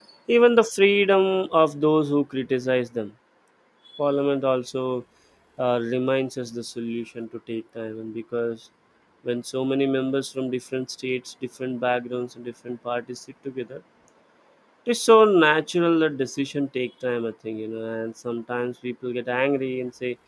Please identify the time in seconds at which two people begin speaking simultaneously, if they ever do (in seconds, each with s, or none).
none